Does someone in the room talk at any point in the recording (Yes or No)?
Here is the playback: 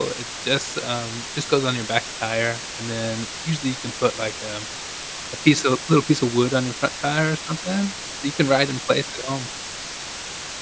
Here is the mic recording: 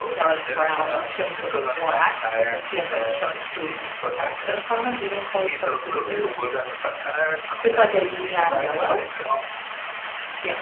Yes